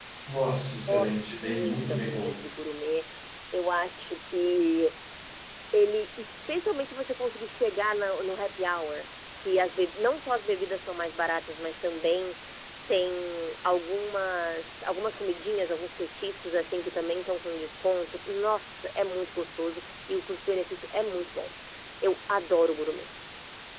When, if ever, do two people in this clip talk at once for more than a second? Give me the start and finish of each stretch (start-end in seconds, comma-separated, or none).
0.9-2.3